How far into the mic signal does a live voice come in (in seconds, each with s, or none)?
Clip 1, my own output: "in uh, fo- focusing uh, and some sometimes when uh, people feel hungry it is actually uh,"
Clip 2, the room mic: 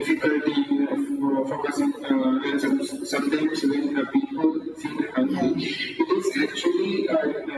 5.2 s